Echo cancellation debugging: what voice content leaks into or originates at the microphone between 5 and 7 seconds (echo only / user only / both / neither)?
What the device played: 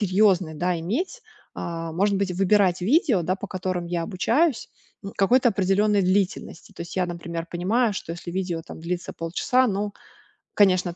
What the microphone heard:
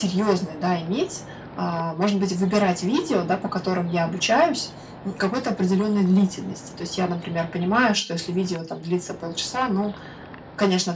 echo only